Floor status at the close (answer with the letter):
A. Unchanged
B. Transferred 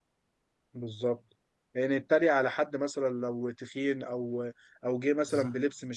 A